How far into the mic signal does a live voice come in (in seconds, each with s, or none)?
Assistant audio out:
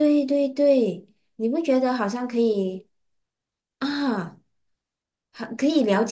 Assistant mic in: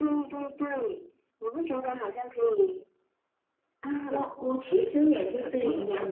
4.1 s